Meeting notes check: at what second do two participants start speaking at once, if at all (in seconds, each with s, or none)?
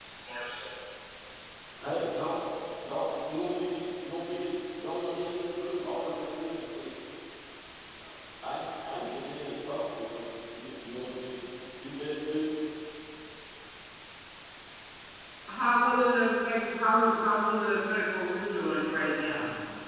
none